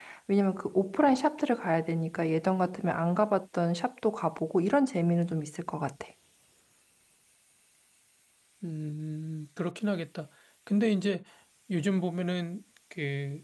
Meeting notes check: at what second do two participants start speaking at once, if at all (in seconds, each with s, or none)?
none